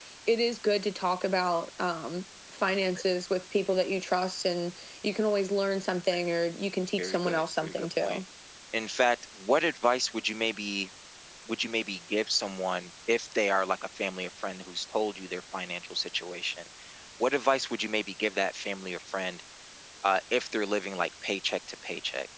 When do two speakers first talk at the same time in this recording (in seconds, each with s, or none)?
7.0 s